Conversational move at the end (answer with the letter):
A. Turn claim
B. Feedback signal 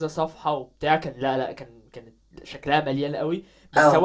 B